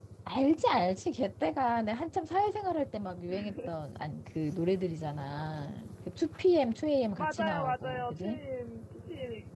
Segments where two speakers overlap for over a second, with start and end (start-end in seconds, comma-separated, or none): 7.2-8.4